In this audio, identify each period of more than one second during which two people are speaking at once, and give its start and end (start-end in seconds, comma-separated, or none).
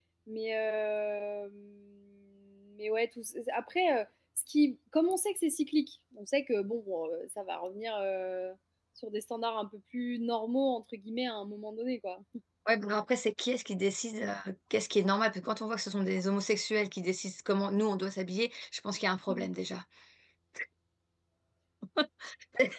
none